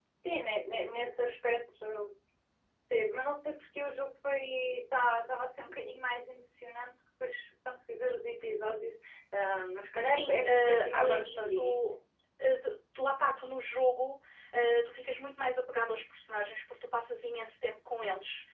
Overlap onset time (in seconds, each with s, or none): 9.9 s